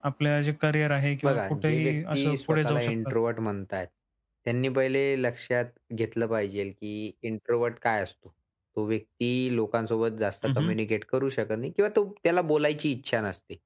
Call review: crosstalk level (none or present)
present